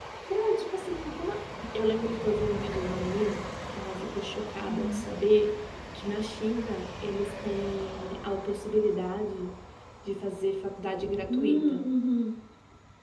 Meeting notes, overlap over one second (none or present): none